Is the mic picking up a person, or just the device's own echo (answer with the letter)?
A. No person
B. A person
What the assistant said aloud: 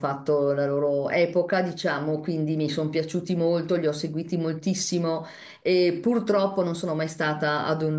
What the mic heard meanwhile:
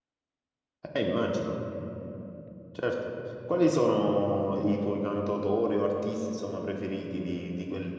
B